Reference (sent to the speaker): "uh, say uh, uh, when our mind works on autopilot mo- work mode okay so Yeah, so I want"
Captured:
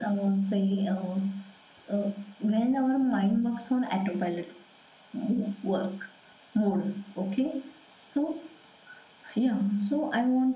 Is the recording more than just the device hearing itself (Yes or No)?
No